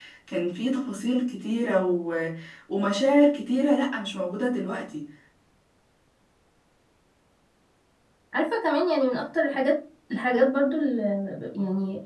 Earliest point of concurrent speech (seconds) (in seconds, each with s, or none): none